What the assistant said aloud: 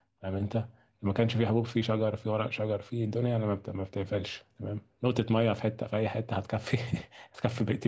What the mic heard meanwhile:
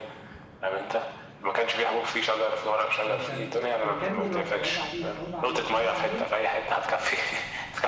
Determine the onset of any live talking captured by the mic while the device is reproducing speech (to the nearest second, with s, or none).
3 s